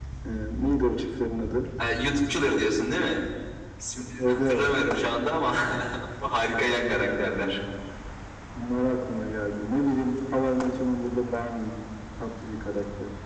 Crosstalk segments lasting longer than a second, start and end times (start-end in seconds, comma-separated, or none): none